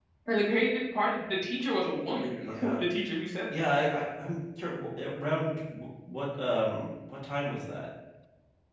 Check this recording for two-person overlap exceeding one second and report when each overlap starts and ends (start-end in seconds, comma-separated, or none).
none